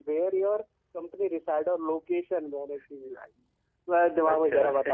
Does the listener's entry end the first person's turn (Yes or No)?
No